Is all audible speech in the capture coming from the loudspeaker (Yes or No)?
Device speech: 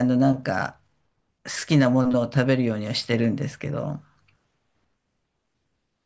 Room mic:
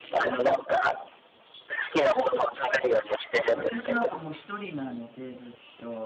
No